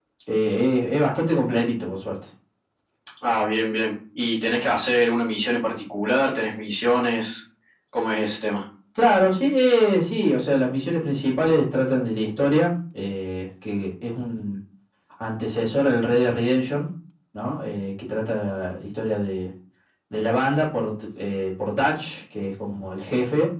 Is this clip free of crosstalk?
Yes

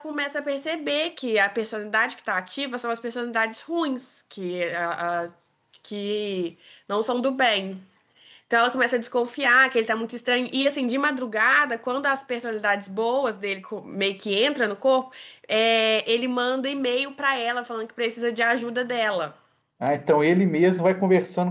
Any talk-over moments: No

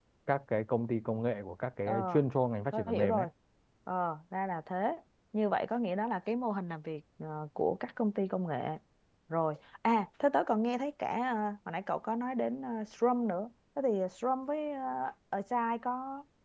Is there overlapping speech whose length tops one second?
No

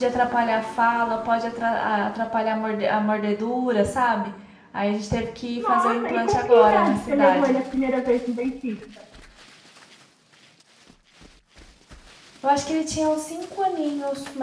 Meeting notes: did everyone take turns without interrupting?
No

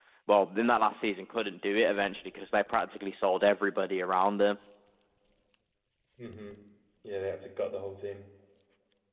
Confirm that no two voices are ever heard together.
Yes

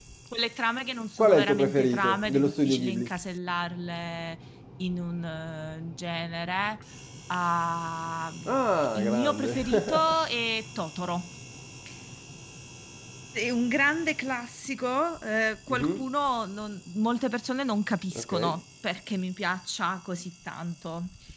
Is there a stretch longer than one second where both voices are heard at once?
Yes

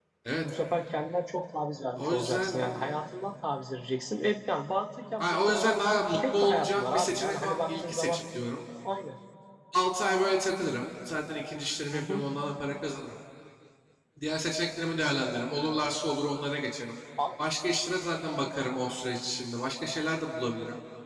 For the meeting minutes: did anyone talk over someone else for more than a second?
Yes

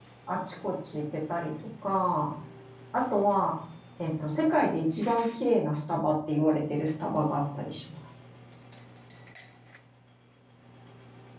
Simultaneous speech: No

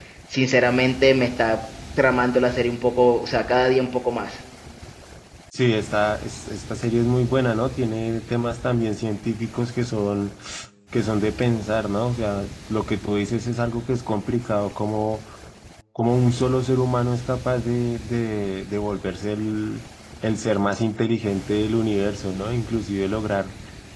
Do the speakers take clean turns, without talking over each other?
Yes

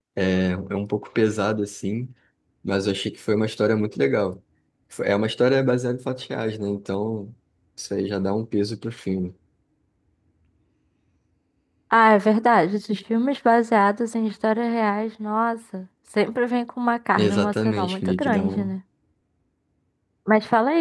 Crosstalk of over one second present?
Yes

